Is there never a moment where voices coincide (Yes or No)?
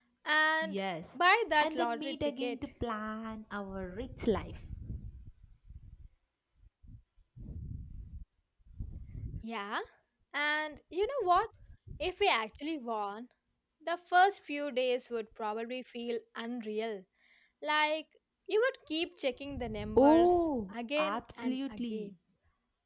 No